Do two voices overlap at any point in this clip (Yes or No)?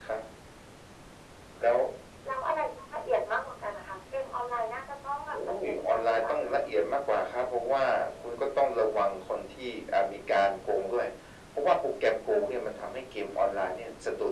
Yes